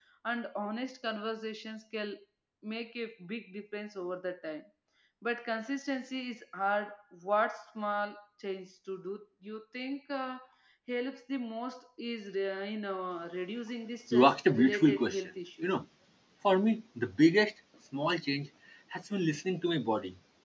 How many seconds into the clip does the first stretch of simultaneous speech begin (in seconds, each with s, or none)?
14.1 s